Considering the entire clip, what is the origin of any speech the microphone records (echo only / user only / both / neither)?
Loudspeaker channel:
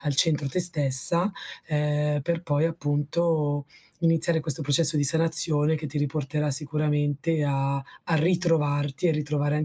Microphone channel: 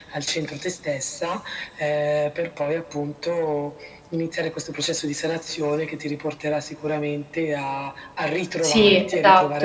both